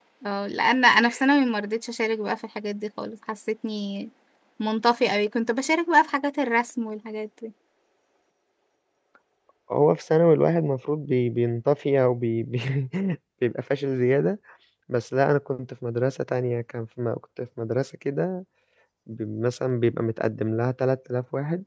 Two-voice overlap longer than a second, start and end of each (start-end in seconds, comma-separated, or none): none